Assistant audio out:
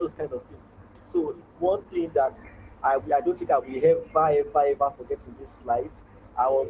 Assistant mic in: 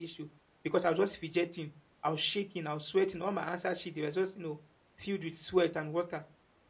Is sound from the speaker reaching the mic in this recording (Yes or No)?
No